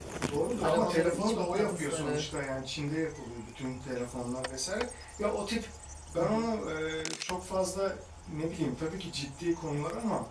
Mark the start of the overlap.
0.6 s

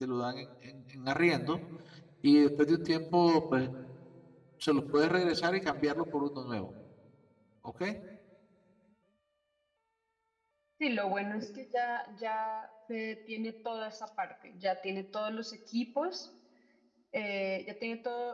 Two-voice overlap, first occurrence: none

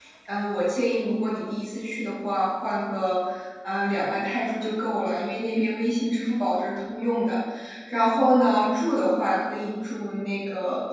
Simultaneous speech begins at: none

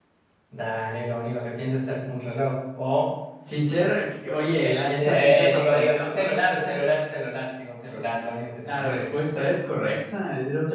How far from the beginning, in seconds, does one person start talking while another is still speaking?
4.7 s

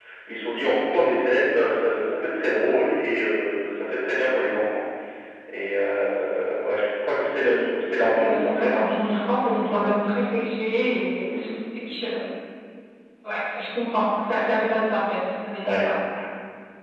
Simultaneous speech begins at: 7.8 s

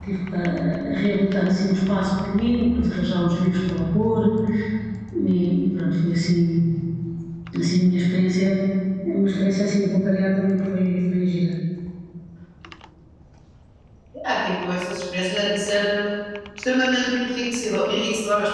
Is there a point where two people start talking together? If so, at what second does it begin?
none

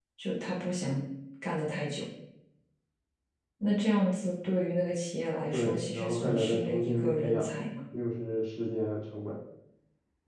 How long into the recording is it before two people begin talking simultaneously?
5.5 s

